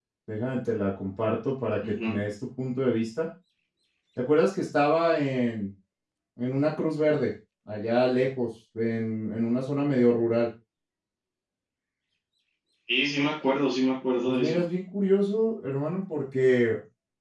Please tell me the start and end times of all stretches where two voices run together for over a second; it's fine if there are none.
none

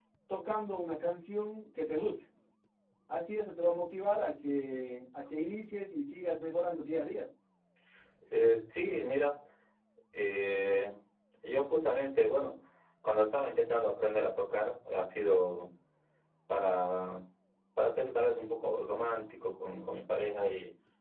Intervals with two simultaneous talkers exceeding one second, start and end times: none

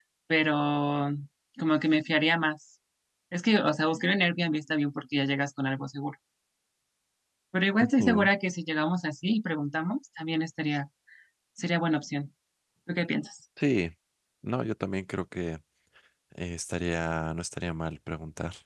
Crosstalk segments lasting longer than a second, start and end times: none

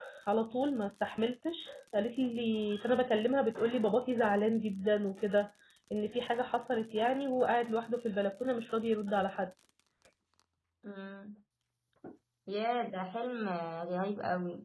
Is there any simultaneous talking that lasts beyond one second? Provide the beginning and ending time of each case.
none

